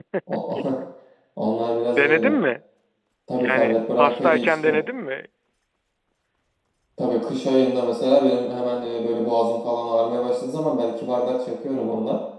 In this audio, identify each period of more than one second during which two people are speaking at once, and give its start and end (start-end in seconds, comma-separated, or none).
3.4-4.8